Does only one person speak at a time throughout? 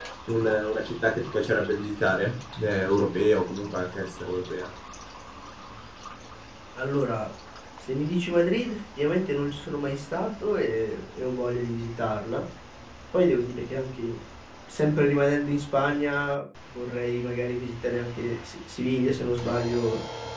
Yes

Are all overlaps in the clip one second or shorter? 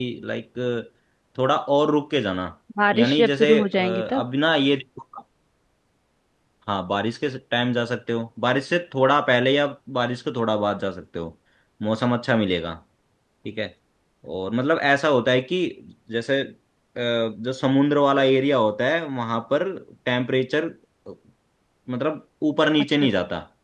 No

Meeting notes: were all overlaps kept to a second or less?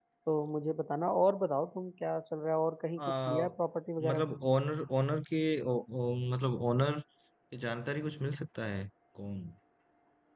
Yes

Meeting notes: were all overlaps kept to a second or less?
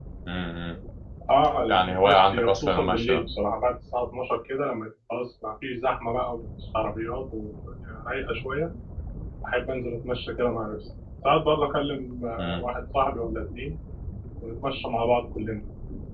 No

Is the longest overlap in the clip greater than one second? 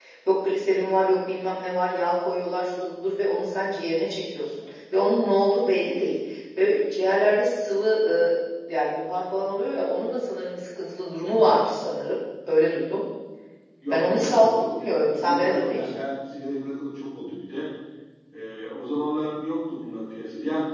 Yes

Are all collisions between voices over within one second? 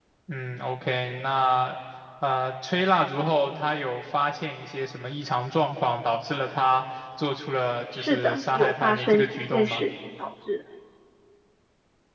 No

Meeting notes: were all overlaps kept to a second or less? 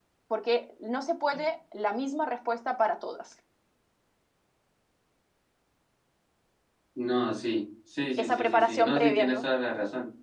No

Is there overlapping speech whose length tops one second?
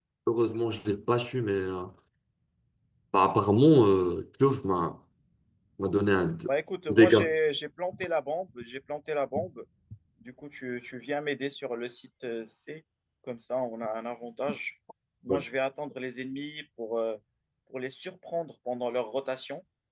No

